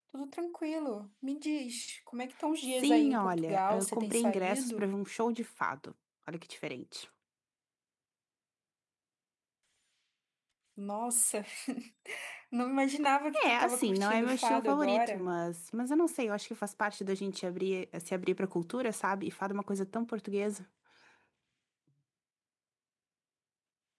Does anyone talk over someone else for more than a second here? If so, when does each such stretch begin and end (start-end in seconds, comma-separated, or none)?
2.6-4.9, 13.4-15.3